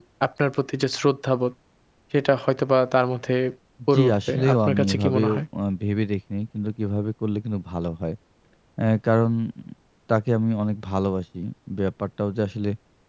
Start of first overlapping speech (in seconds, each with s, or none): 3.9 s